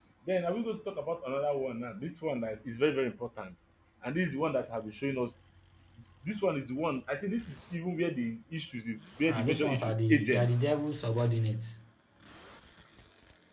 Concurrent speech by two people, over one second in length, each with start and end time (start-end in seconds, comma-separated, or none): 9.3-10.5